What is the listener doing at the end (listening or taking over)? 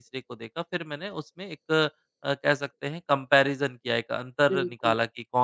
listening